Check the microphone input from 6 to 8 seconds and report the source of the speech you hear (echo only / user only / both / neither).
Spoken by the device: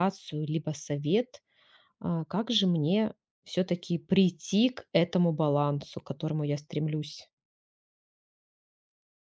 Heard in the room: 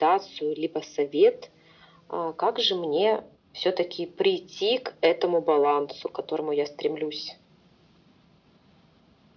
echo only